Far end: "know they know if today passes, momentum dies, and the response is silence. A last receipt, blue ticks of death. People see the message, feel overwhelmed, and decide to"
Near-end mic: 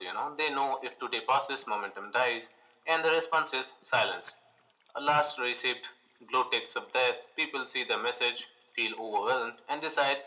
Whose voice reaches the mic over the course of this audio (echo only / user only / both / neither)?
echo only